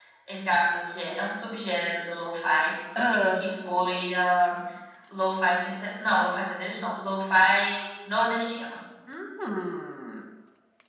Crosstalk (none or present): none